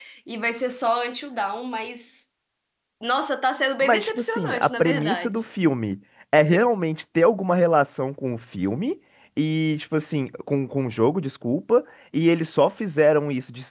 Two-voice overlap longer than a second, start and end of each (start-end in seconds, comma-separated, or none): 3.8-5.3